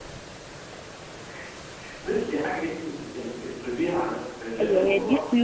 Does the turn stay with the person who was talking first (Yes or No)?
No